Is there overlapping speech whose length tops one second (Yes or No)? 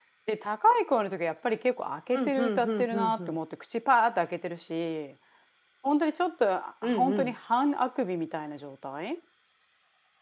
Yes